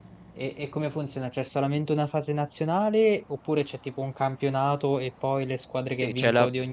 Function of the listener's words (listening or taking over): taking over